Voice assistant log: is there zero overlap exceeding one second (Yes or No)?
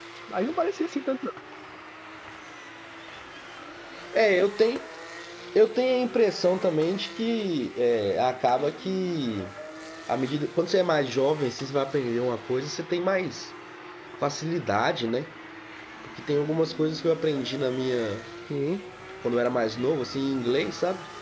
Yes